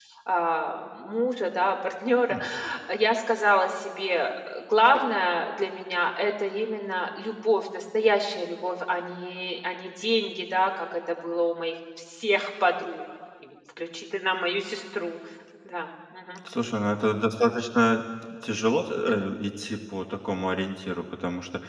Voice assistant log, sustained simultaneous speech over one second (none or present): none